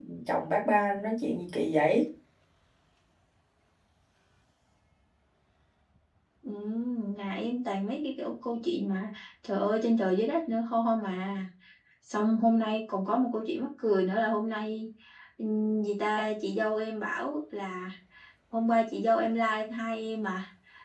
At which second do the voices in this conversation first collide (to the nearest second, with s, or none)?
none